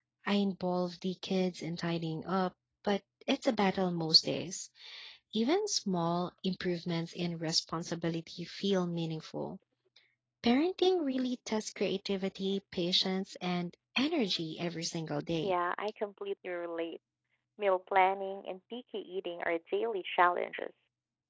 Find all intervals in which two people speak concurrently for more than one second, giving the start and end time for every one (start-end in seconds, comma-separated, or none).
none